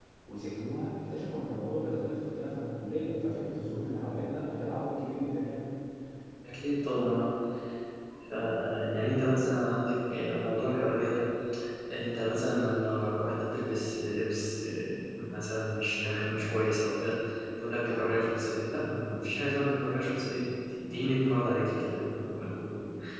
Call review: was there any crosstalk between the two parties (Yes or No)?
No